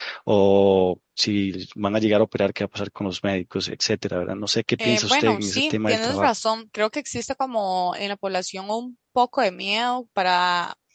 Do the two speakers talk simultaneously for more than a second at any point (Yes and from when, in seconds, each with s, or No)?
Yes, from 4.8 s